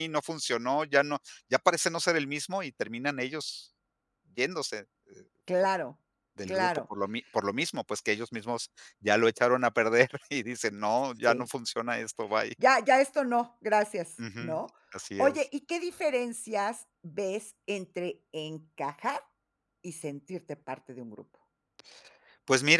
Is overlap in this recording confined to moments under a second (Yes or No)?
Yes